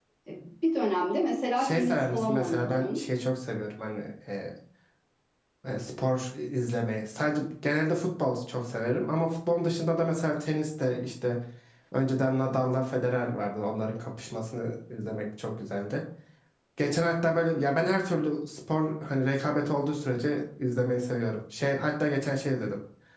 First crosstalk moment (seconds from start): 2 s

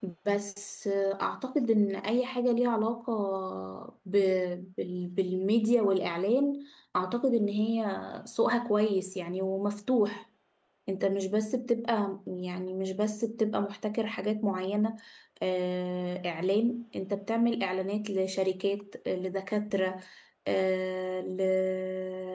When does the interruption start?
none

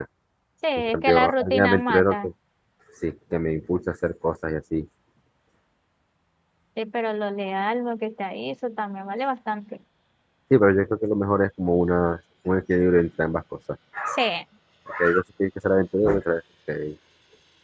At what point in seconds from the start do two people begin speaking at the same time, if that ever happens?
1 s

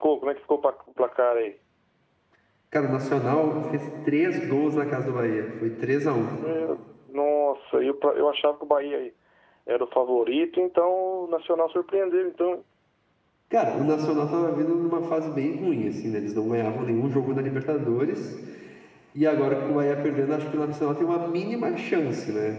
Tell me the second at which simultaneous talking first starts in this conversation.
none

